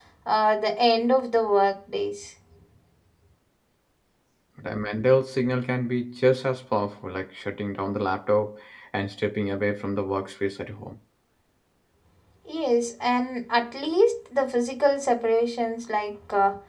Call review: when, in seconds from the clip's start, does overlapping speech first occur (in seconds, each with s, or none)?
none